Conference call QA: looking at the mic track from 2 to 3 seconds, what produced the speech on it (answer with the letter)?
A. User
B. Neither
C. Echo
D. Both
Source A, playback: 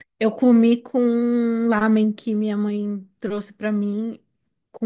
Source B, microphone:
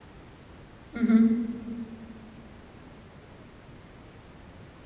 B